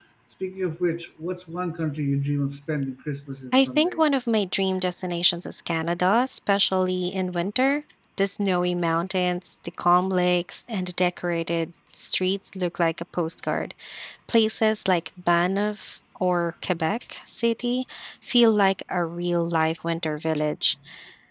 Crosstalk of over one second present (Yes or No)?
No